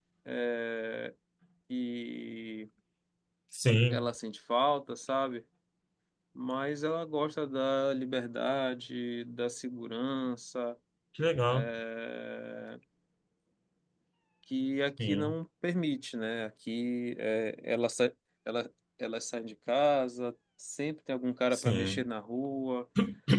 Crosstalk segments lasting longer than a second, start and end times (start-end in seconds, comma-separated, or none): none